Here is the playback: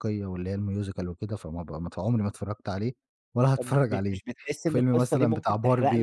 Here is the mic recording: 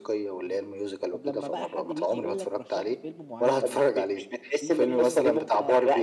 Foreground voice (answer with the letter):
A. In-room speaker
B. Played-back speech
B